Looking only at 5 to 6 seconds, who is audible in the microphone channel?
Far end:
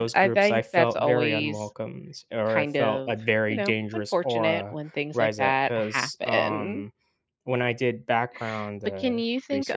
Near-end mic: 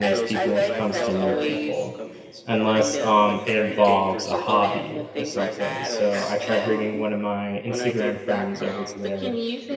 both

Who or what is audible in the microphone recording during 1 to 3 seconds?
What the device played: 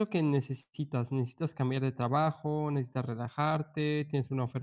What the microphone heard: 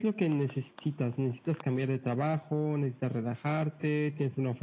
echo only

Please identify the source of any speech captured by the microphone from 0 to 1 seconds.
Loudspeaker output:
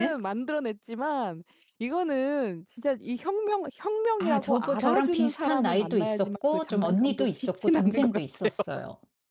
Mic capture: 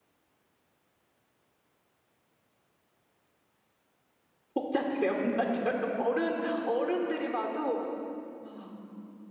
neither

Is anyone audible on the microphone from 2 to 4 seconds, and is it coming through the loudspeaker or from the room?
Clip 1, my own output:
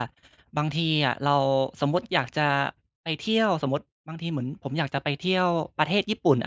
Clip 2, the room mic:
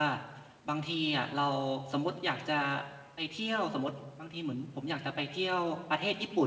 echo only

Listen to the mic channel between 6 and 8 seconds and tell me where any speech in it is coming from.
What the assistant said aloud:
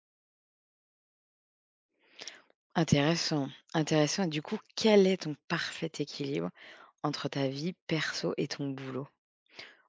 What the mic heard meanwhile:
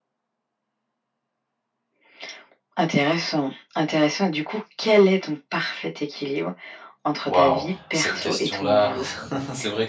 both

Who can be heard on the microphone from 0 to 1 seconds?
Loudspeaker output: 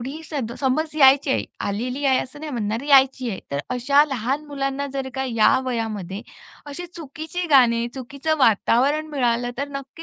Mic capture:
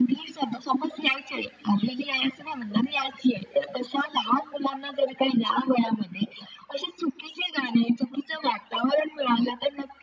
echo only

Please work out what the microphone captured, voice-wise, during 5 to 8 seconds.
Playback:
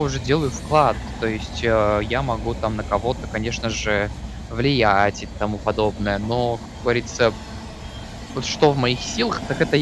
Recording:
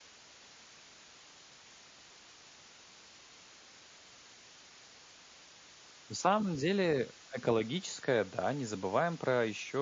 user only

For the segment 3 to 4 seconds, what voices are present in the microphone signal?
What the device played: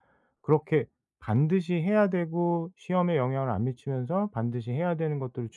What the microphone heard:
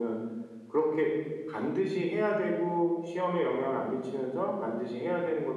echo only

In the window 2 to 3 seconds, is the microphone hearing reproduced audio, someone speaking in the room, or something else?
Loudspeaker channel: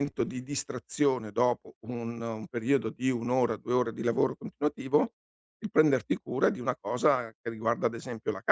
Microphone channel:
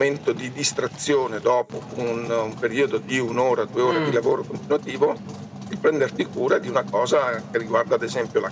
echo only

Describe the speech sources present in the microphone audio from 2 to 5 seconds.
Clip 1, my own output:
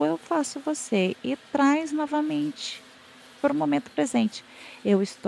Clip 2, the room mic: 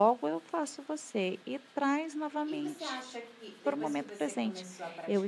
both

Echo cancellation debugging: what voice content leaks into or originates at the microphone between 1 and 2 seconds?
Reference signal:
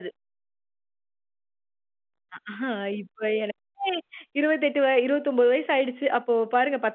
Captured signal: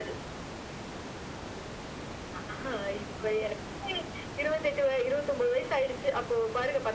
neither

